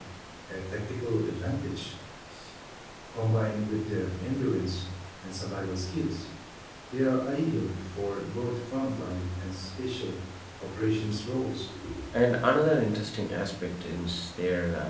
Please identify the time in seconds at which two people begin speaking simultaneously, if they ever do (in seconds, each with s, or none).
none